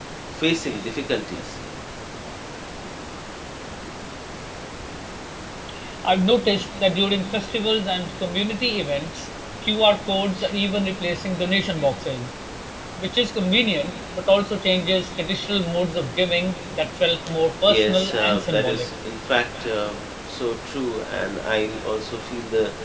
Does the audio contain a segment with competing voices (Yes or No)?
Yes